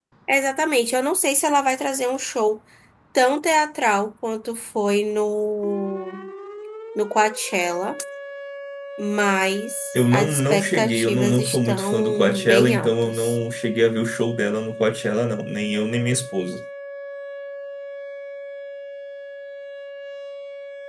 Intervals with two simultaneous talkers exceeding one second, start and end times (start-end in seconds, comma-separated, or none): 9.9-13.4